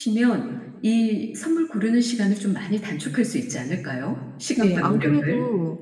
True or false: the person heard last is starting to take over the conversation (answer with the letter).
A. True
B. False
A